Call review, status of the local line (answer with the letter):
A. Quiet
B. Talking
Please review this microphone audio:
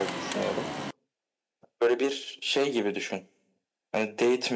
A